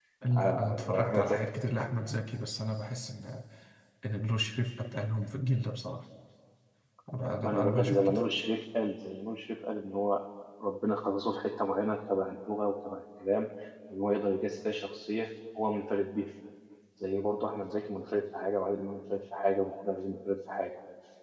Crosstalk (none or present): present